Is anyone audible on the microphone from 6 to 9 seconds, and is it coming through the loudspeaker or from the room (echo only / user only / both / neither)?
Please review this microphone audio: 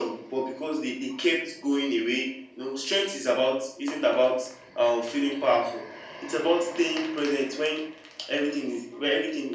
echo only